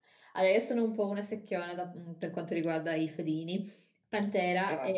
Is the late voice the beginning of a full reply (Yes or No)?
No